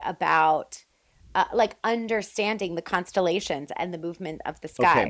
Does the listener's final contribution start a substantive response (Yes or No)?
Yes